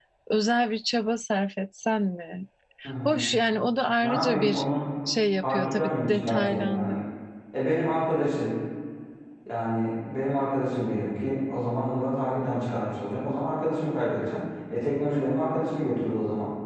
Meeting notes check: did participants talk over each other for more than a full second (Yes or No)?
Yes